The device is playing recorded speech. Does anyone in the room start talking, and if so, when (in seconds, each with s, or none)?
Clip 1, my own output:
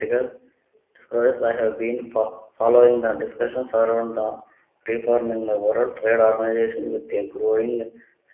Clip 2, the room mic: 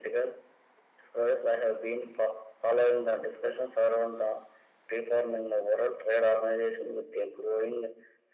none